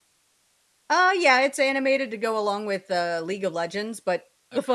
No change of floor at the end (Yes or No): Yes